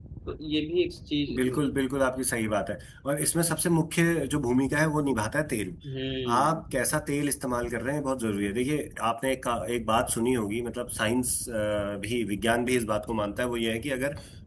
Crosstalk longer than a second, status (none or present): none